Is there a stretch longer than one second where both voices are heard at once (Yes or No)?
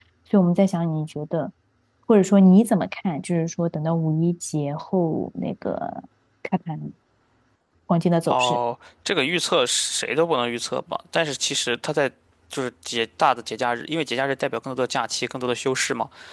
No